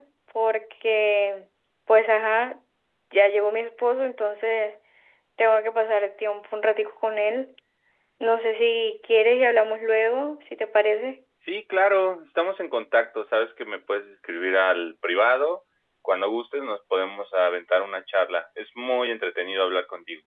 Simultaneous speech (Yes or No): No